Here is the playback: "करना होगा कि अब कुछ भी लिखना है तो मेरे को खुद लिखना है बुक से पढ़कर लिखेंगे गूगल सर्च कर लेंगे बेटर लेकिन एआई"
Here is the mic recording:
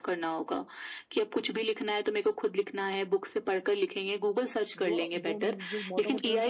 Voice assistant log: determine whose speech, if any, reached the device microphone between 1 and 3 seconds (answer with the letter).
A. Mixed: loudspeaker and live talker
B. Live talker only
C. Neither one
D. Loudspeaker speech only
D